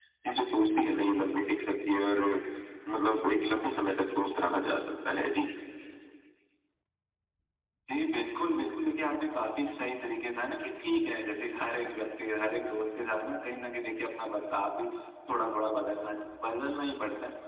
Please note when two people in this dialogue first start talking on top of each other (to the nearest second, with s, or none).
none